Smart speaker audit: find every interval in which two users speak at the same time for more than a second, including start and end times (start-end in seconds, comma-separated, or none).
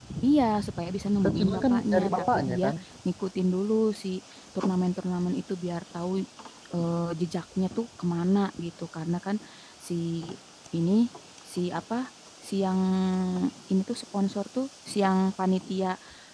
1.2-2.6